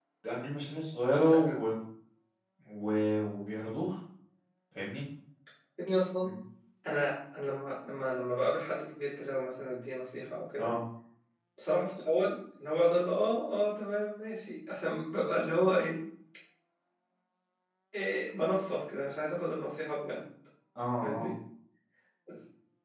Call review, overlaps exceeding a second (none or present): none